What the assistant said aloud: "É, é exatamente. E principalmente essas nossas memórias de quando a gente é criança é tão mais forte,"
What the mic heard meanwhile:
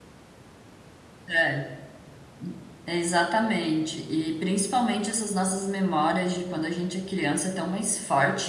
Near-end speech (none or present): none